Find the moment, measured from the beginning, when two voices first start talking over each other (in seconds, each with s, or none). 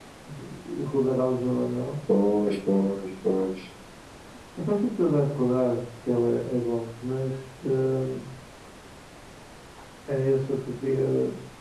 none